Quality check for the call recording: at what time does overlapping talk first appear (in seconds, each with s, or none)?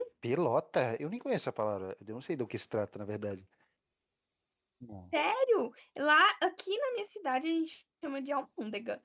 none